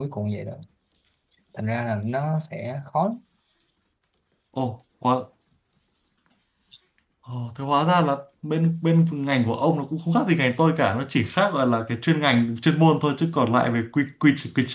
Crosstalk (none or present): none